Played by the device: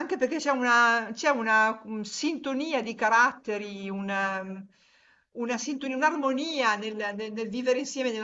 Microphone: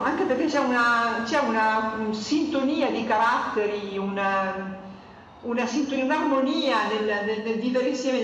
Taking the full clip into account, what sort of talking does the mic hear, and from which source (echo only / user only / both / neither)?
echo only